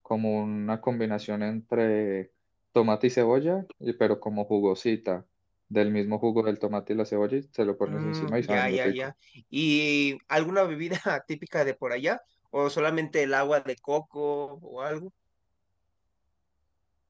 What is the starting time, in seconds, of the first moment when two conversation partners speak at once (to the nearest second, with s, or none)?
8 s